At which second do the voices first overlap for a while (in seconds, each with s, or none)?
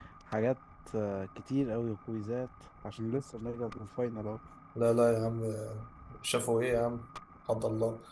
none